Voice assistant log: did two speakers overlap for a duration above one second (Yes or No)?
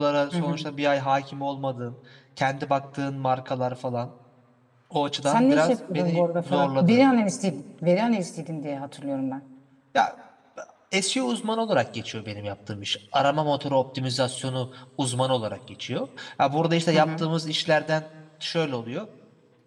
Yes